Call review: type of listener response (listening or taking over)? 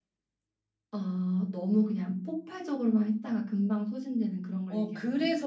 taking over